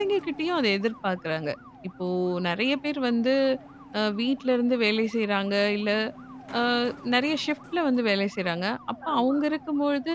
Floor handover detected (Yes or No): No